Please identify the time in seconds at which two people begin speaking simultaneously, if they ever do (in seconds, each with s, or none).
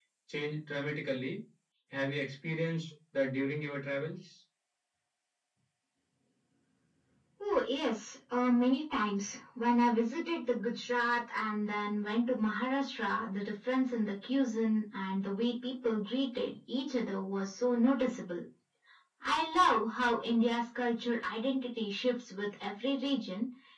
none